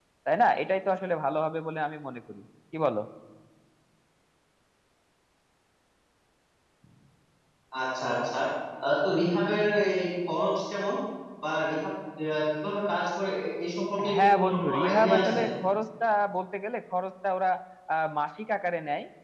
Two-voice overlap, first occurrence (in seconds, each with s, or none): 14.0 s